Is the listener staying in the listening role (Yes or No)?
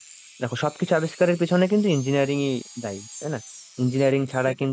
Yes